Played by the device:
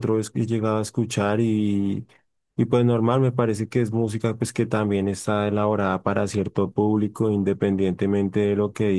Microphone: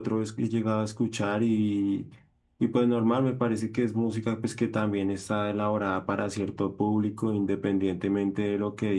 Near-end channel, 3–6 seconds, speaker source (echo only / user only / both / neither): echo only